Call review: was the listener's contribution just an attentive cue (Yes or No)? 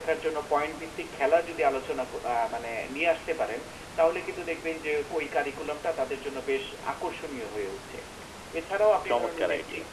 Yes